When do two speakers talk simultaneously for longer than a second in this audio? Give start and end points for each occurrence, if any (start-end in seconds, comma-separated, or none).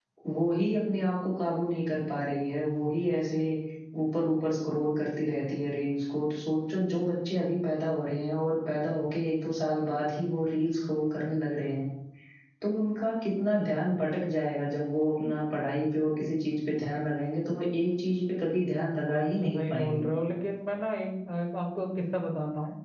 18.6-20.1